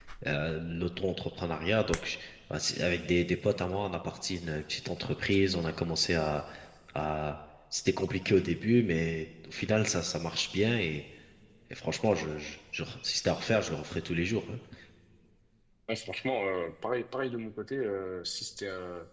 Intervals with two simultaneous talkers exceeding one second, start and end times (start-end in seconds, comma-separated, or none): none